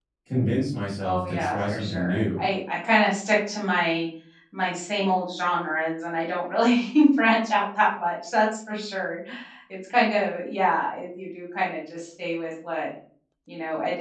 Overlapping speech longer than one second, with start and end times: 1.0-2.4

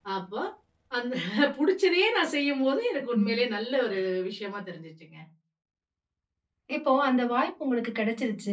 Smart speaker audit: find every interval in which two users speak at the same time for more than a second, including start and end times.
none

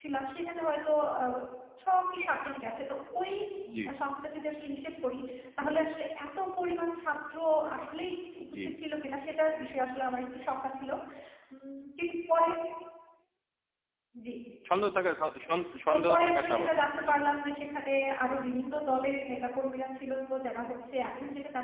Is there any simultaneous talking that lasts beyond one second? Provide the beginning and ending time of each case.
15.9-17.1

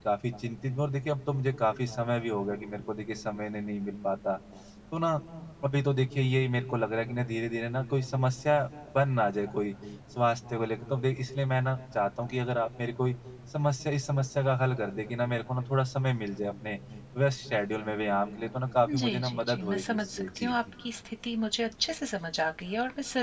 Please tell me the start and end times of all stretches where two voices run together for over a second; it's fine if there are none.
19.0-20.5

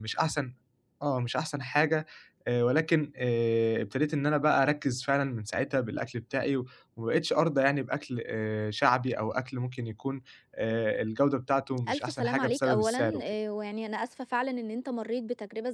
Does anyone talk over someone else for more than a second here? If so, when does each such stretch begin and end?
11.9-13.2

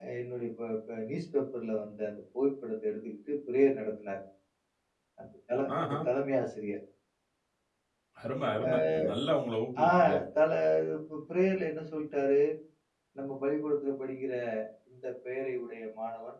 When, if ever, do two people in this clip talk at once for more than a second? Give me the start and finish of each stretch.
none

